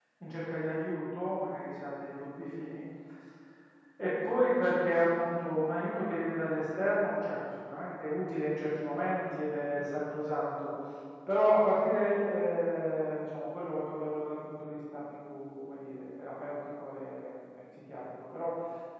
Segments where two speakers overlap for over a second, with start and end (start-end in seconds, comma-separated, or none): none